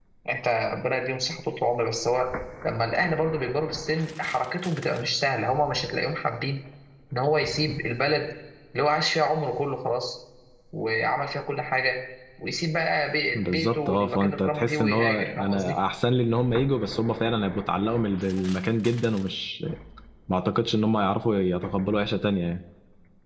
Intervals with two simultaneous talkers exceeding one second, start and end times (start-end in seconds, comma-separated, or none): 13.3-15.8